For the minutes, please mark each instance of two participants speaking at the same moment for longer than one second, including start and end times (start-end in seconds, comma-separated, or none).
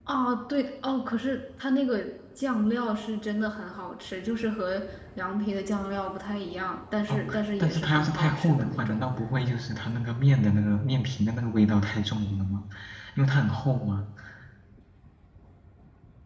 7.6-9.0